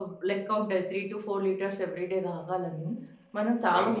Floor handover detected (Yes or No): Yes